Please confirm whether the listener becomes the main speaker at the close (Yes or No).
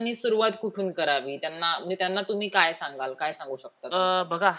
Yes